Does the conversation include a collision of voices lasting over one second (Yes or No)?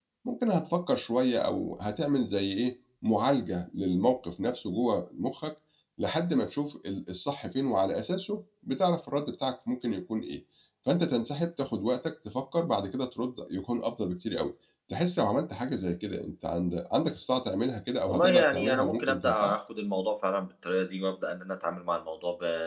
Yes